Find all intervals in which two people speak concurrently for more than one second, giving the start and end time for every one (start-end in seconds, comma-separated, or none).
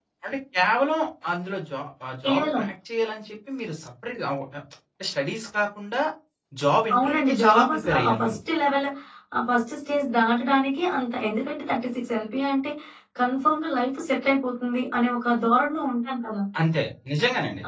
7.0-8.4